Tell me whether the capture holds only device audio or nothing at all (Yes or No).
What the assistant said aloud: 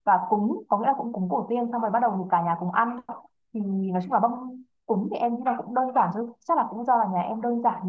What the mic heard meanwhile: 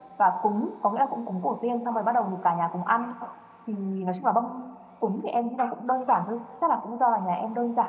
Yes